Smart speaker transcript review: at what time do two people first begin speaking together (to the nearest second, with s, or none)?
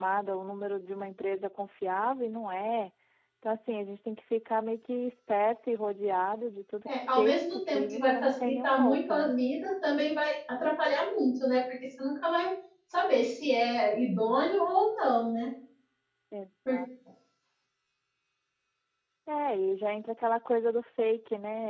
7 s